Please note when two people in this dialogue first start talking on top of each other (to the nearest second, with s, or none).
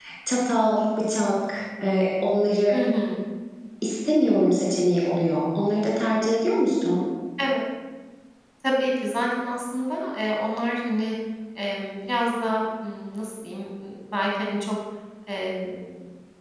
none